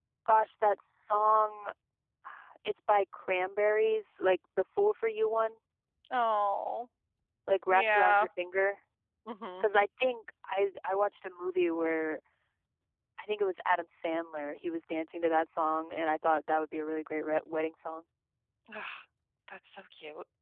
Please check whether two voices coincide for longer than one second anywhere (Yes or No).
No